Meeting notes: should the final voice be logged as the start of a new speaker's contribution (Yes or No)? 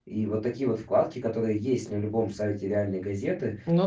No